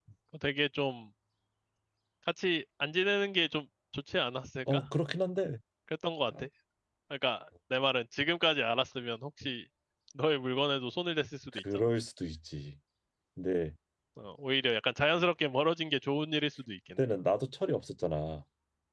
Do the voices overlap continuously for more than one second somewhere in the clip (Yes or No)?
No